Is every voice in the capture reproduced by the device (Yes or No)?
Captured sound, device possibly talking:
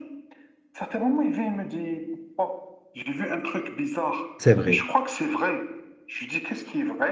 No